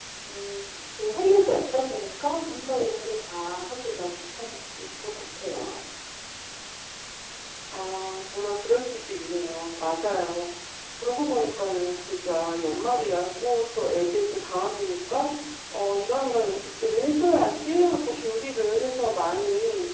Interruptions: none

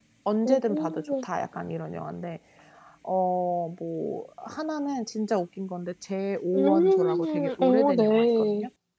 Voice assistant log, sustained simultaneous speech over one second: present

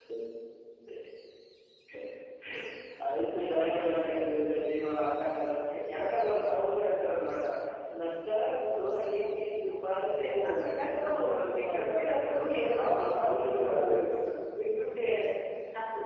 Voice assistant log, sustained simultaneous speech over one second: present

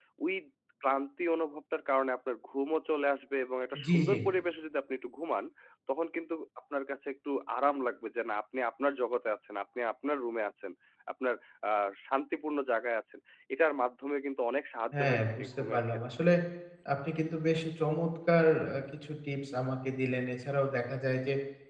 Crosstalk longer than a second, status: present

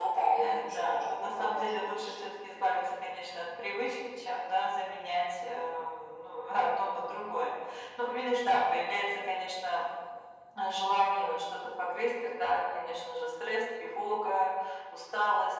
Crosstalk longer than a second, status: present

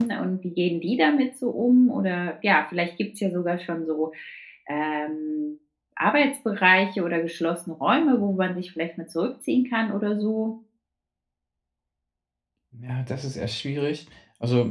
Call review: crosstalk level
none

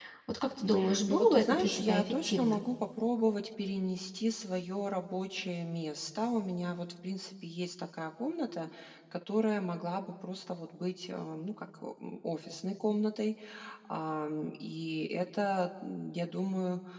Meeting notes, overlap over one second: present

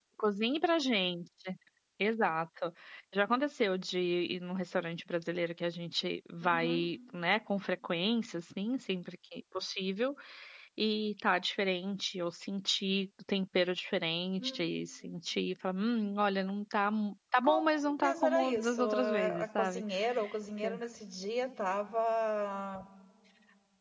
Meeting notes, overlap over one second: present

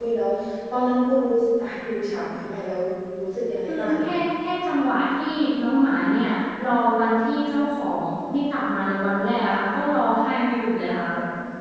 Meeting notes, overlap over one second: none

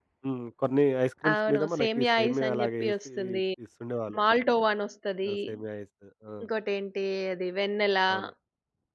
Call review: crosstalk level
present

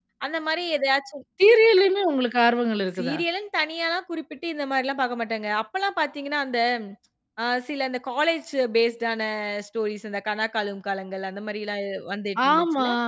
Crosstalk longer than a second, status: none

